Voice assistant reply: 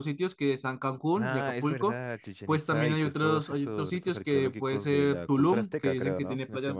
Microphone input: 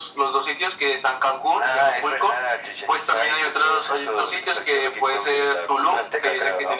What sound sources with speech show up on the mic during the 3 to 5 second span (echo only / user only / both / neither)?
echo only